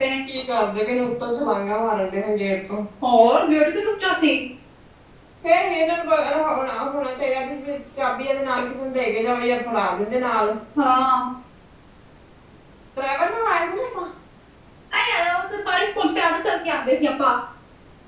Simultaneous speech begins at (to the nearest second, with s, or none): none